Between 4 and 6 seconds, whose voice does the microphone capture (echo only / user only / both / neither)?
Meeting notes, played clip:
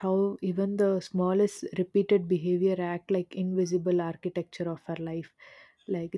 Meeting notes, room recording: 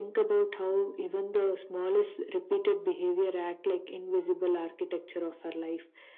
echo only